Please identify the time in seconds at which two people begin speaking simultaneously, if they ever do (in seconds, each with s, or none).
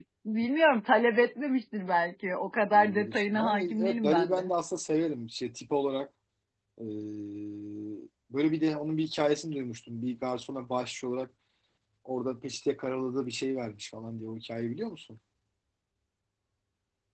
2.7 s